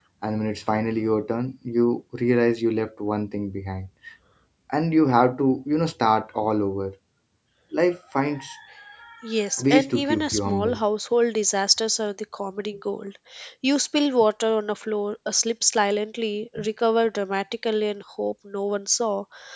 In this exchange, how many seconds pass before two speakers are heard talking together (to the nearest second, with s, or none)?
10 s